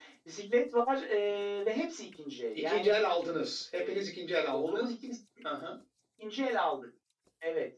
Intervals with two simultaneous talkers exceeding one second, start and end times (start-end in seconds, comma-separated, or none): none